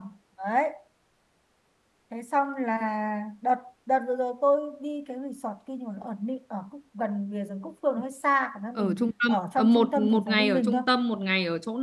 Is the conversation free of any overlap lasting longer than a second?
No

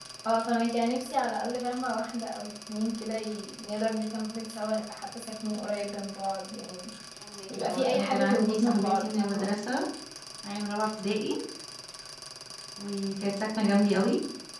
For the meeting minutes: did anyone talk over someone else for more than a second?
Yes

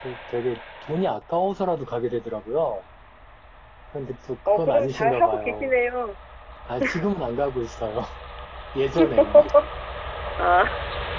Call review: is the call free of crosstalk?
No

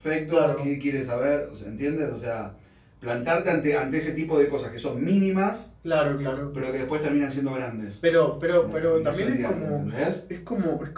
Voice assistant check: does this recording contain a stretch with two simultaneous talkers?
Yes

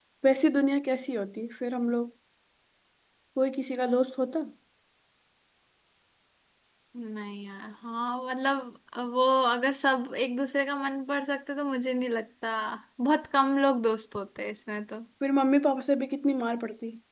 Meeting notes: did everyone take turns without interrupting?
Yes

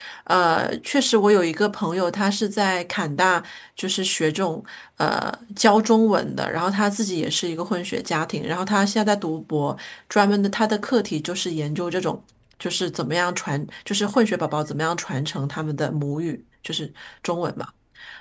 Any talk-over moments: No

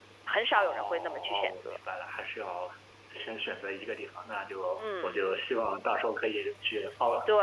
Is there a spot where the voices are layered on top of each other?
Yes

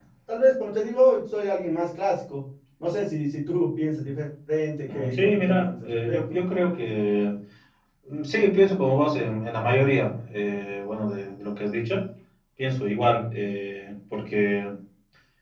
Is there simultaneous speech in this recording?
Yes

